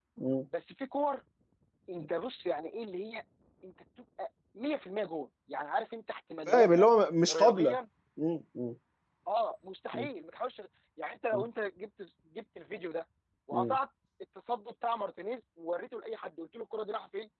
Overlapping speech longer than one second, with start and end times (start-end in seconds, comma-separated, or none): none